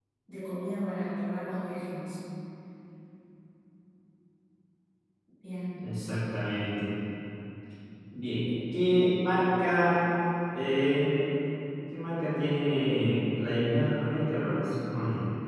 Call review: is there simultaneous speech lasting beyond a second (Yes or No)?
No